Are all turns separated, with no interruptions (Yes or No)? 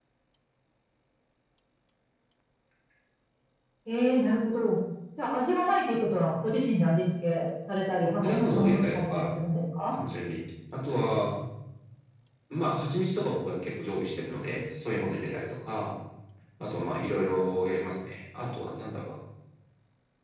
No